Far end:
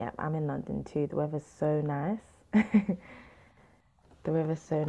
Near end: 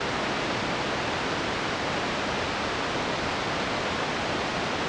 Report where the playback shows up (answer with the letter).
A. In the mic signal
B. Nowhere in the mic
B